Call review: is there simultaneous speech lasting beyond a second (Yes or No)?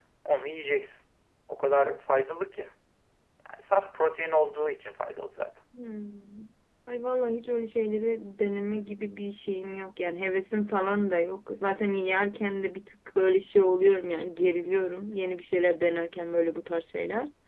No